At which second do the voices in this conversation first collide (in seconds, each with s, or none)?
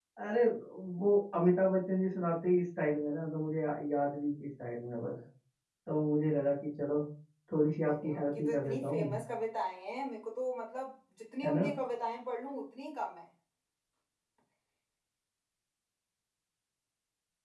7.9 s